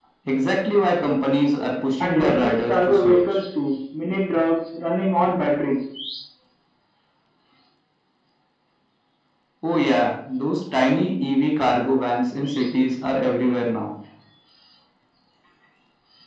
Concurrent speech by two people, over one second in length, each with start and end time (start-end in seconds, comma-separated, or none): 2.0-3.4